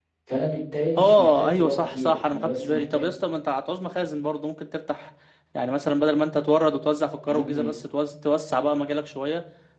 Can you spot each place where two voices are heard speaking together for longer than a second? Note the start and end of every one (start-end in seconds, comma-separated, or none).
1.0-3.1